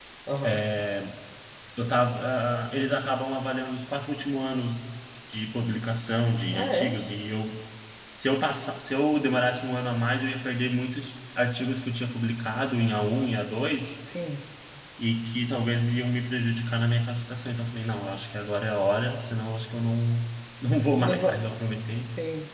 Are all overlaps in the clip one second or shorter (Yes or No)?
Yes